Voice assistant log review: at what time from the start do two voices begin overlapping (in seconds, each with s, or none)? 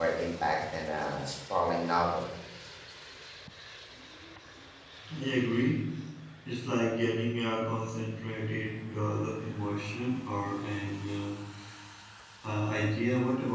none